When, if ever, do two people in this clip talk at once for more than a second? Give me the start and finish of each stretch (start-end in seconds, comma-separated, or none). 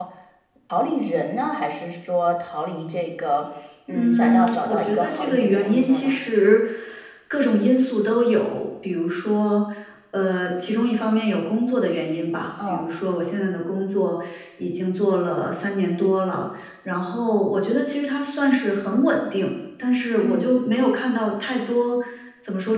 3.9-6.2